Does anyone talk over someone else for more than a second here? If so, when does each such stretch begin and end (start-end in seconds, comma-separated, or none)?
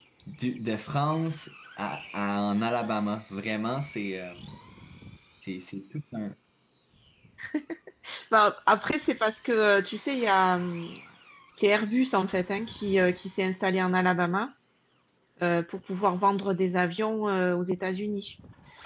none